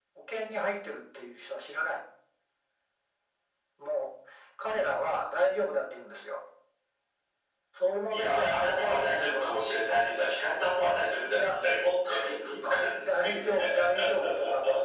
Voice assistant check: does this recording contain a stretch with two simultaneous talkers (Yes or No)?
Yes